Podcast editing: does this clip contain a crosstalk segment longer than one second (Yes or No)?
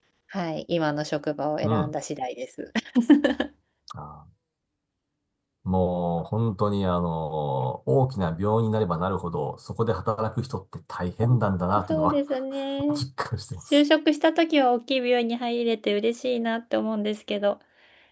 No